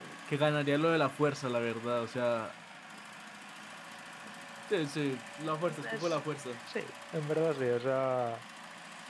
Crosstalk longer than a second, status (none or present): none